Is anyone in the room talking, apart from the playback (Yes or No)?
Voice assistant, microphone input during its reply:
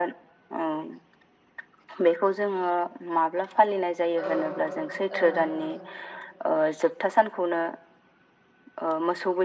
Yes